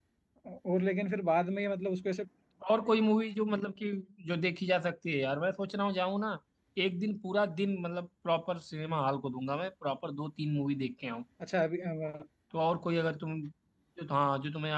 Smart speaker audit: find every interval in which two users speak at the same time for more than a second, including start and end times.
none

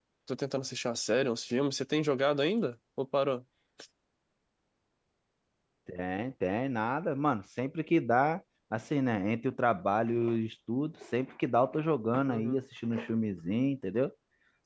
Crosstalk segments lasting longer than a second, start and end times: none

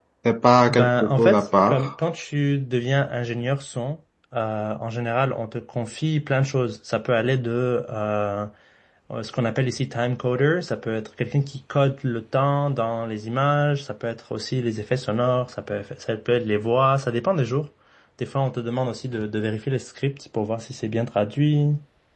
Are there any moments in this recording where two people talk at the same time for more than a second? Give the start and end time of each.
0.7-1.9

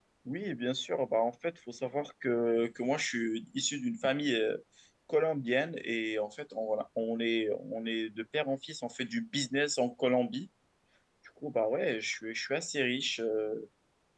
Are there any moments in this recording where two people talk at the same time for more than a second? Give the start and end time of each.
none

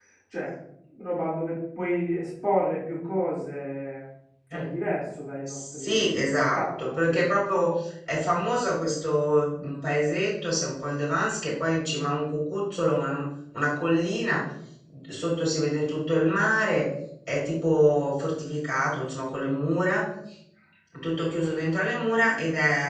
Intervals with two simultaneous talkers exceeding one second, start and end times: 5.5-7.4

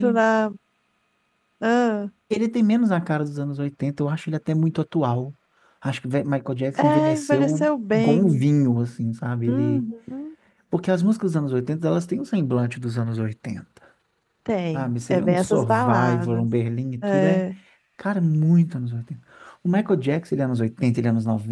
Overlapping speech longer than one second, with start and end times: 6.8-8.4, 14.7-16.4

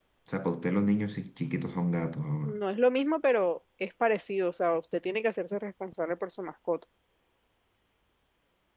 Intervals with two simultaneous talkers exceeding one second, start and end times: none

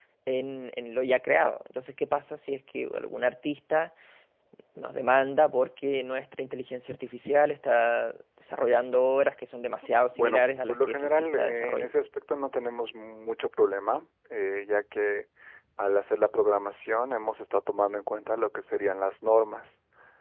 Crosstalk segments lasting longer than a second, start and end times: 10.1-11.9

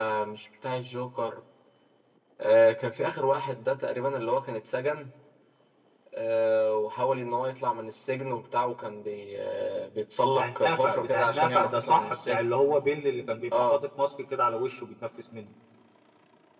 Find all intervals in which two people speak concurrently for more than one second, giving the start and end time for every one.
10.3-12.4

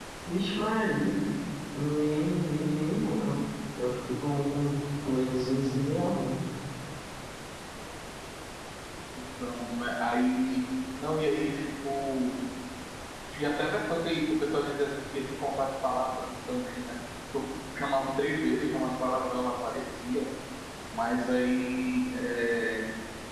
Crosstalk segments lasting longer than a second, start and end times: none

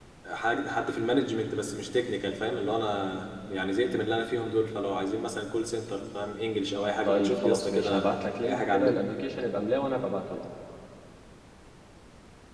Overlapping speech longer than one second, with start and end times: 7.0-9.0

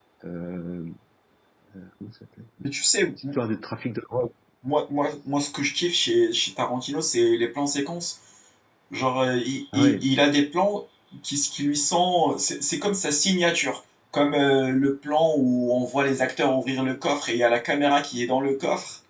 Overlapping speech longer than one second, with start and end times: none

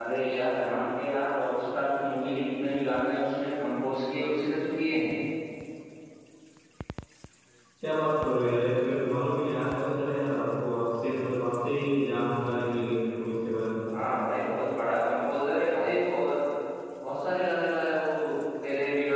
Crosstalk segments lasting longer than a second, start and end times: none

